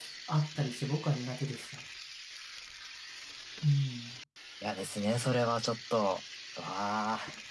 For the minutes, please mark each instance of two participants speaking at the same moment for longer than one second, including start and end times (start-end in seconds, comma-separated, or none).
none